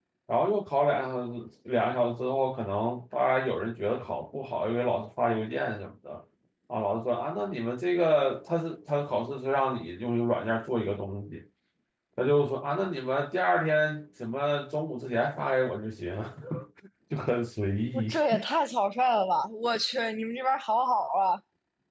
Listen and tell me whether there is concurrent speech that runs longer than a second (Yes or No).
No